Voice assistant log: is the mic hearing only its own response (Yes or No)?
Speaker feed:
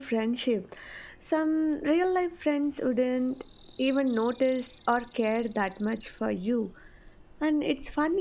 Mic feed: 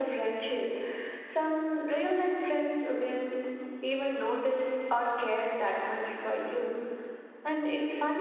Yes